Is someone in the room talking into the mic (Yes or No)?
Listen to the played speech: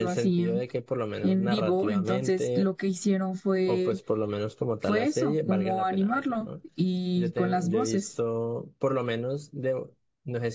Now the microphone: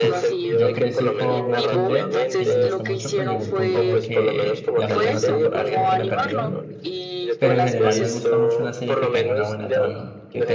Yes